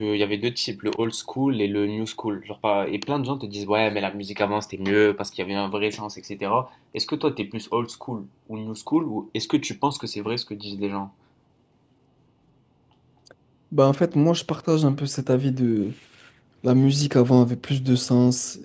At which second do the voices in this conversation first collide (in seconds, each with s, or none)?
none